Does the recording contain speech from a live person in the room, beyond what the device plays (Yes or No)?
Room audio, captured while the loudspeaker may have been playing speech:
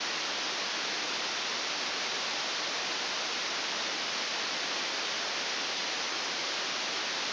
No